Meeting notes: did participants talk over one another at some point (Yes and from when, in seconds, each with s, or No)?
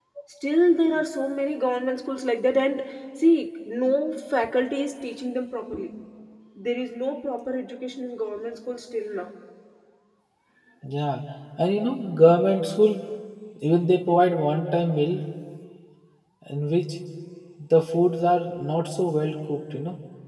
No